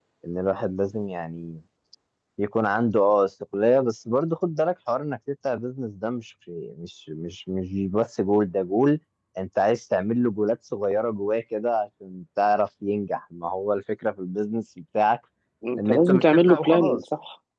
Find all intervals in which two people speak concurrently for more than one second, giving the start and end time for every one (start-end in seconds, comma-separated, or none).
15.8-17.0